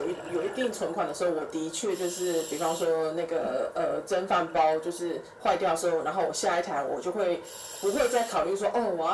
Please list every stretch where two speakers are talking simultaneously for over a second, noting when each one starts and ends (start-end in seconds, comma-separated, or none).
none